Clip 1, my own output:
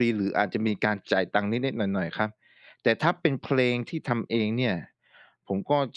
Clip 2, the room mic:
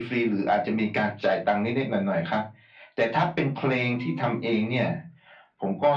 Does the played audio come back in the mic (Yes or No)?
Yes